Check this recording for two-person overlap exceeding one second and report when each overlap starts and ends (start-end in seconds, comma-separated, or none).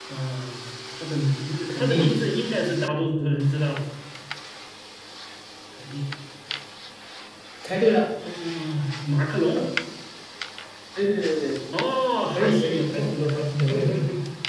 12.3-14.0